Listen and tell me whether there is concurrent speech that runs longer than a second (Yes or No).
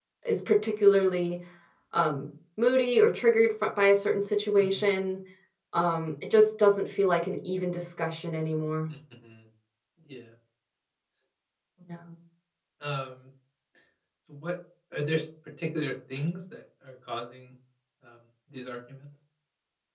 No